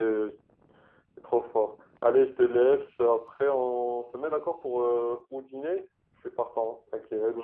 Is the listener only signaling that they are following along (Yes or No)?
No